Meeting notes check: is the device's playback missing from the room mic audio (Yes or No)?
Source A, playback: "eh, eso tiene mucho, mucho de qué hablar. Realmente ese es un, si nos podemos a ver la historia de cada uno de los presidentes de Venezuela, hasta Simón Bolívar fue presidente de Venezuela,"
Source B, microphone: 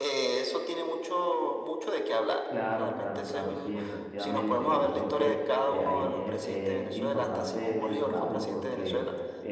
No